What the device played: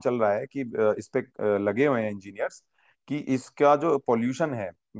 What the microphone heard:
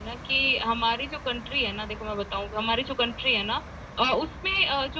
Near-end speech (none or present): present